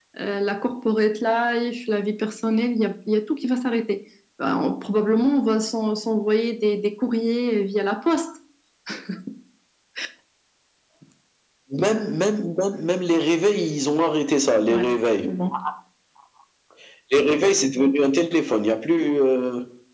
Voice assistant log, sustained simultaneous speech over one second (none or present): none